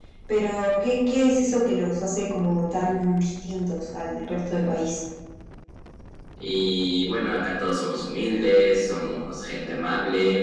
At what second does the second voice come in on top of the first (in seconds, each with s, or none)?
none